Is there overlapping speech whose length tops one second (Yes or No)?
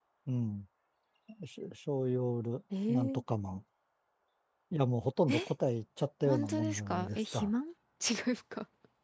Yes